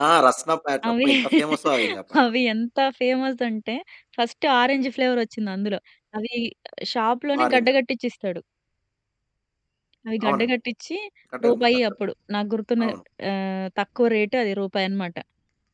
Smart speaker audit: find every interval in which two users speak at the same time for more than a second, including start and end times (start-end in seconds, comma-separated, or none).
none